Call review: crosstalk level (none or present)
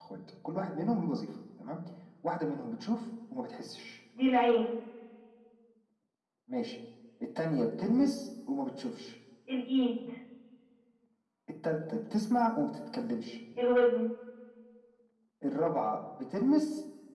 none